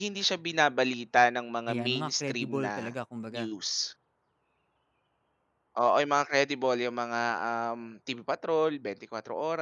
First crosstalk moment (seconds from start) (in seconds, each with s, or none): 1.7 s